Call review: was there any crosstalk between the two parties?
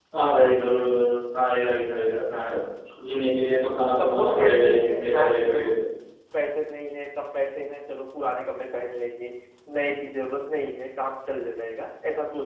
Yes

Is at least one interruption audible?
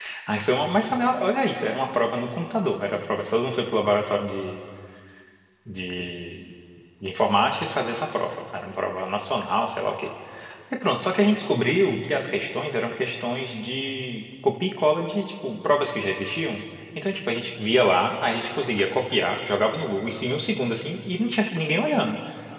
No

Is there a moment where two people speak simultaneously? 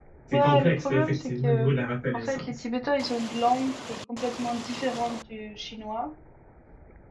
Yes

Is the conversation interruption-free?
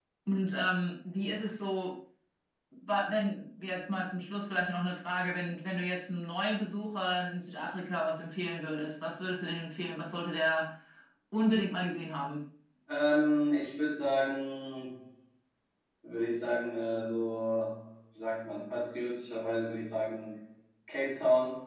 Yes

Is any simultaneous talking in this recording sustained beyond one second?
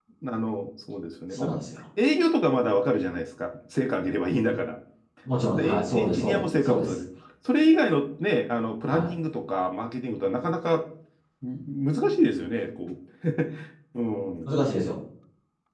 Yes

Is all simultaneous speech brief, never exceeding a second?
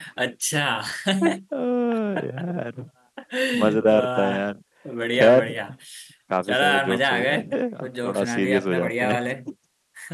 No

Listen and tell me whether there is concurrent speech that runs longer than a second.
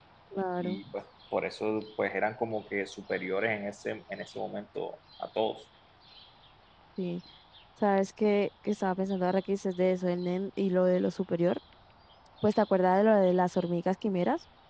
No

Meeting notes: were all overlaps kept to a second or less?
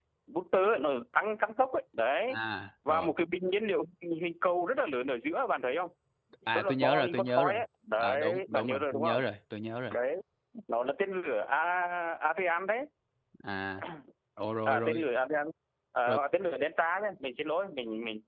No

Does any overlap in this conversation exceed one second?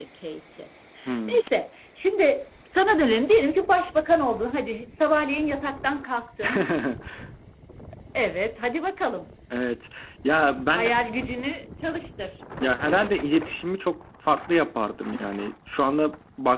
No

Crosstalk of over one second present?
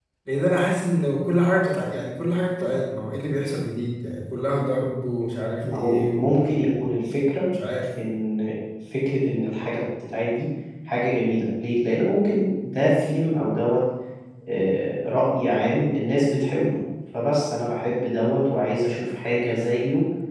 Yes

